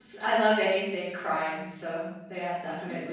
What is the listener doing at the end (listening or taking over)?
taking over